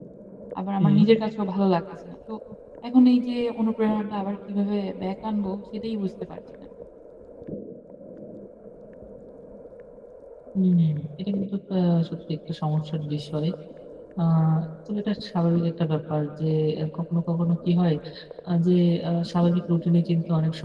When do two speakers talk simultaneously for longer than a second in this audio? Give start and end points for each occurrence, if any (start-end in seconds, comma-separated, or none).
none